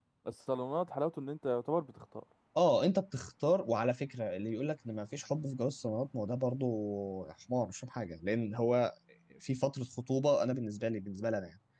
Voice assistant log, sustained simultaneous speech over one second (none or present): none